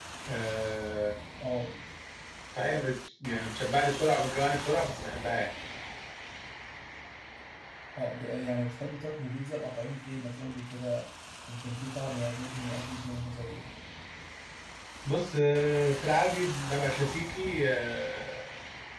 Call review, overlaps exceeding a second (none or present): none